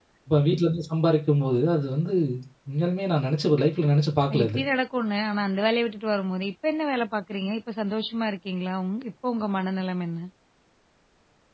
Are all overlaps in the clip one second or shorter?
Yes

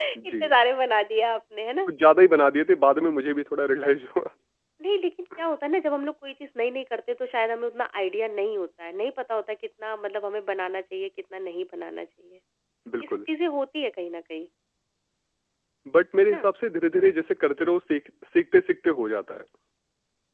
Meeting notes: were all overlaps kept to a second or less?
Yes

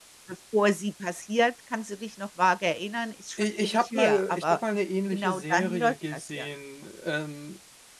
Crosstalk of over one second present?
Yes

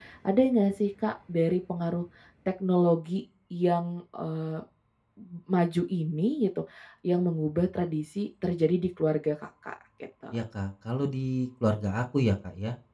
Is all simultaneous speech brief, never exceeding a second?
Yes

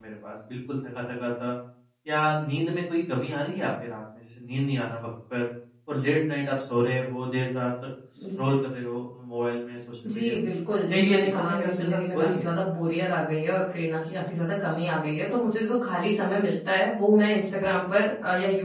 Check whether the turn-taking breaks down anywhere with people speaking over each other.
Yes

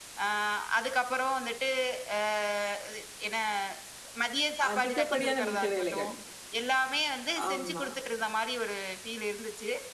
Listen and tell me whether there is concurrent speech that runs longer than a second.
Yes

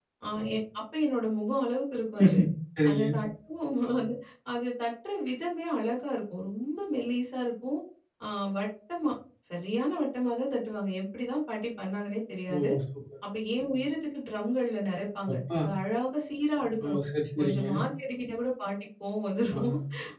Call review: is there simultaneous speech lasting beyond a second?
No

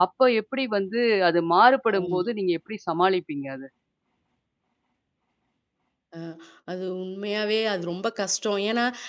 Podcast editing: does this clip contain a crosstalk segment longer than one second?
No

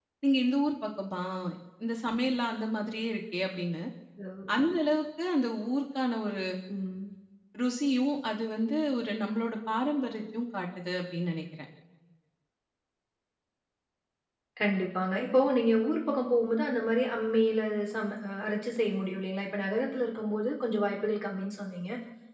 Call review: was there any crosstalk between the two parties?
No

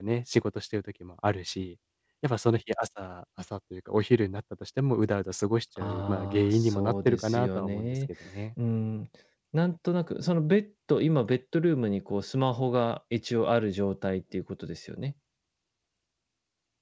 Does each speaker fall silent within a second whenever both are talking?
No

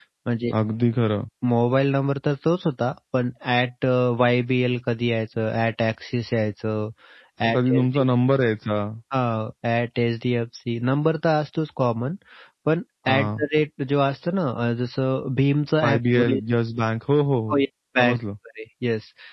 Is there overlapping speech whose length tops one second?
No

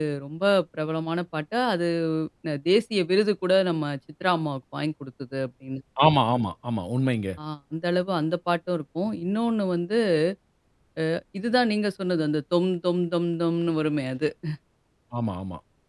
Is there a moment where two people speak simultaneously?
No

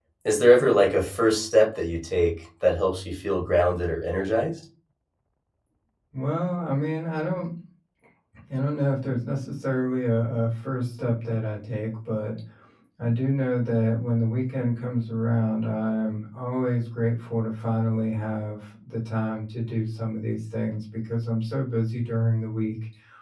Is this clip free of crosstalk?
Yes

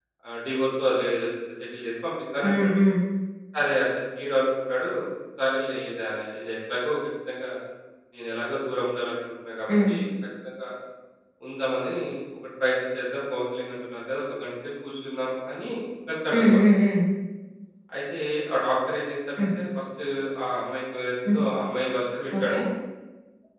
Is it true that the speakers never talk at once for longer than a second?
Yes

